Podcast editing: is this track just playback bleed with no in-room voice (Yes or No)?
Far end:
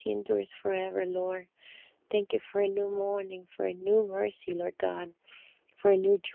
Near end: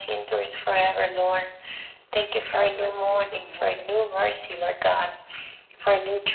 No